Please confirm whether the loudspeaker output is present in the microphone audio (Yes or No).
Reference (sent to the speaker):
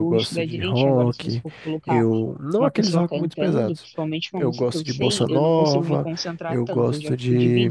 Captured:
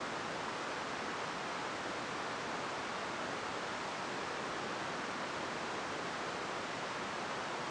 No